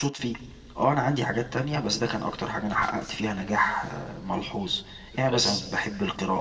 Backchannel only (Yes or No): Yes